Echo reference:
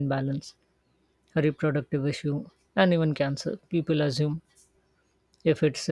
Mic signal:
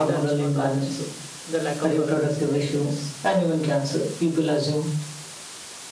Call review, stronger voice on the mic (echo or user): echo